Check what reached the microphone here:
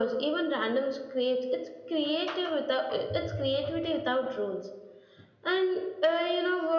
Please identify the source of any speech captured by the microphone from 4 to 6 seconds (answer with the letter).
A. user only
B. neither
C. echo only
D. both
C